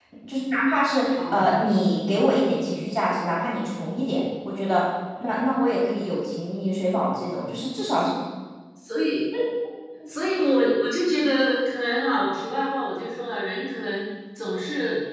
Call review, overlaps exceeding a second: none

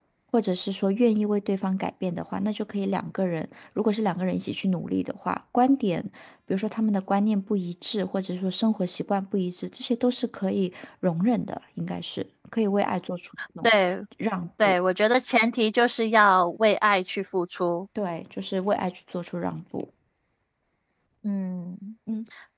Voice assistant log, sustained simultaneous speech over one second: none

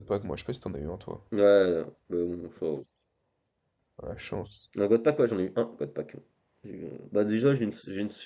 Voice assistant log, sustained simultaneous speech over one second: none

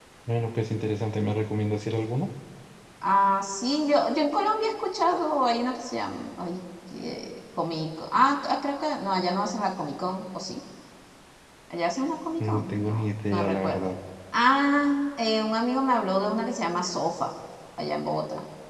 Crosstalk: present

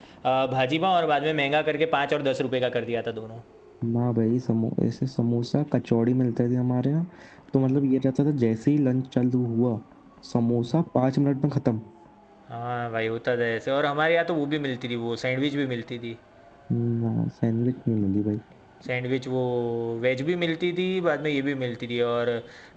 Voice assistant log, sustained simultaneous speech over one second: none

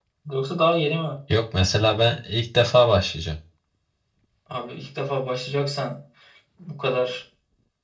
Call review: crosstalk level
none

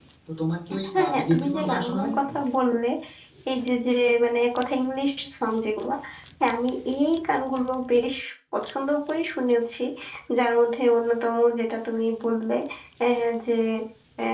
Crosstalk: present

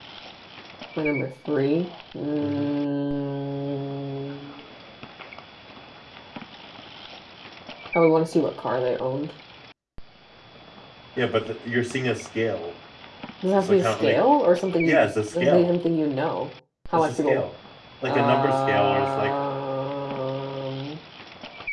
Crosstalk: present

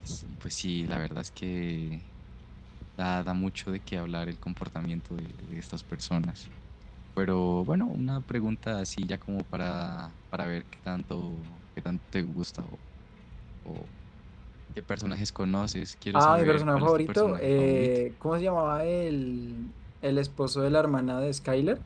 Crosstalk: present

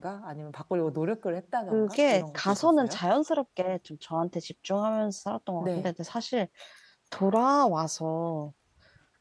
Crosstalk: present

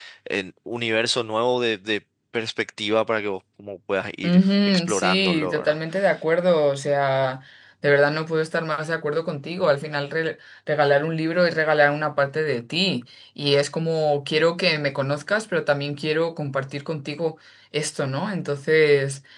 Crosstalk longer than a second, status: present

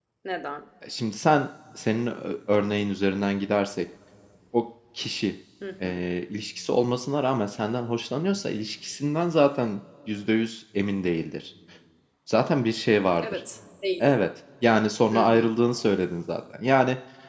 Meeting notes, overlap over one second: none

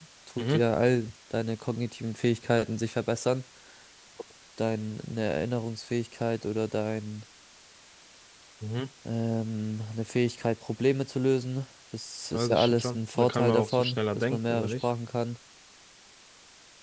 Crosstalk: present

